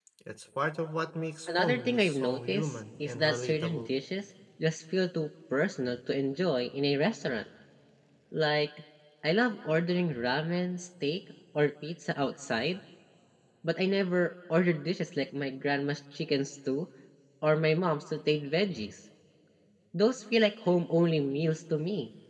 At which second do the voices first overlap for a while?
1.5 s

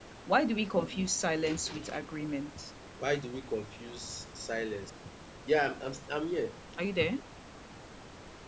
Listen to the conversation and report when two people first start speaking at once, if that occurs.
none

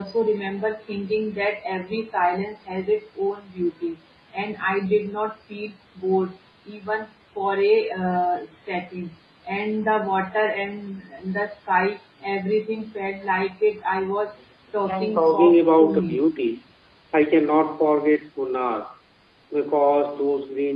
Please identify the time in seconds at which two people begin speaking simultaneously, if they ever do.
14.8 s

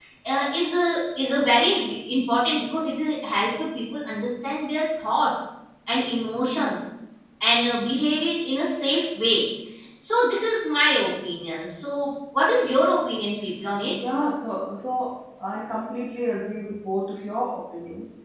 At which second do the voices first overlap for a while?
none

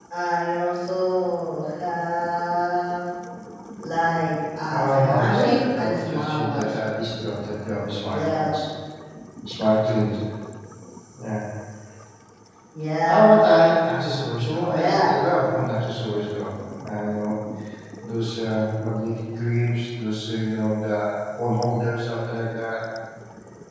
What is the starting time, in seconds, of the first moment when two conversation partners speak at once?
4.7 s

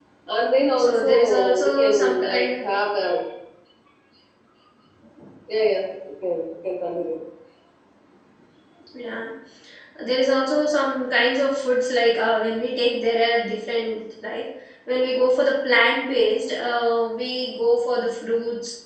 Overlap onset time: 0.8 s

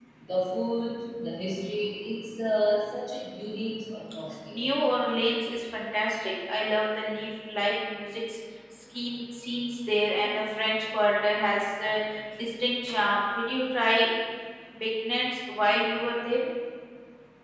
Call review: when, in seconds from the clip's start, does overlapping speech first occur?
none

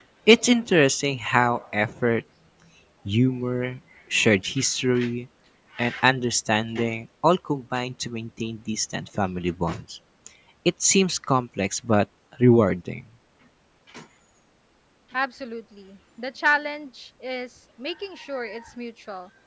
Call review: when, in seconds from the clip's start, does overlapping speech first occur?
none

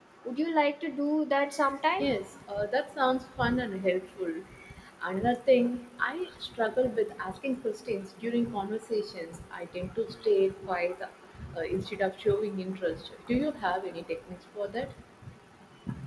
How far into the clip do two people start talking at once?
none

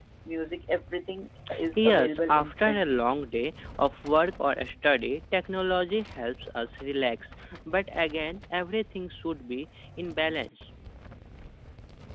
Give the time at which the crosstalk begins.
1.8 s

